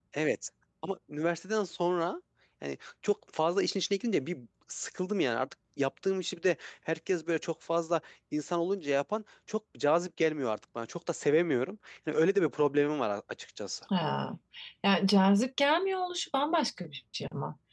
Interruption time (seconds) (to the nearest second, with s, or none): none